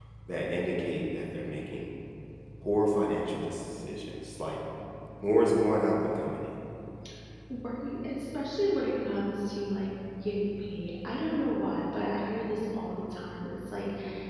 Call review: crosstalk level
none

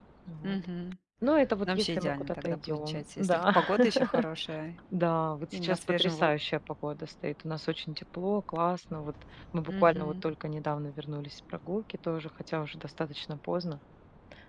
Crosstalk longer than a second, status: present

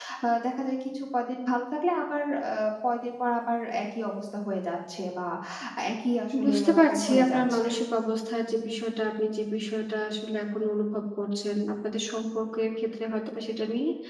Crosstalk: present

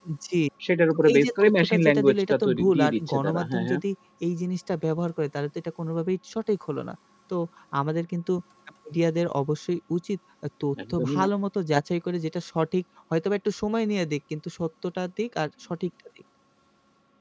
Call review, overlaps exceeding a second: present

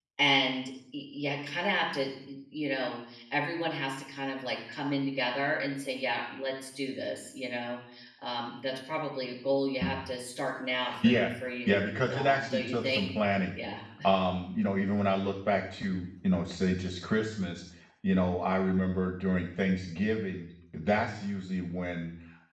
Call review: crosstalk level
present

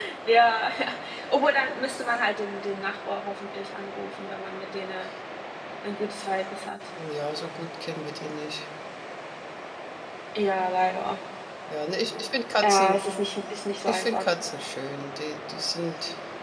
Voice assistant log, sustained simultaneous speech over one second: none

